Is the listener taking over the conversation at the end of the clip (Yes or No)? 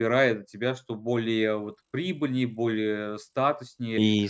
Yes